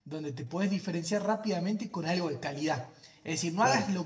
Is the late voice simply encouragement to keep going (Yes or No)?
Yes